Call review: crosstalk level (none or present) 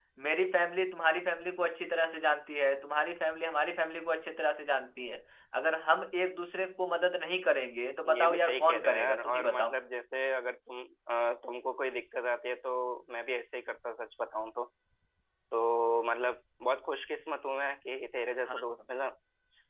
present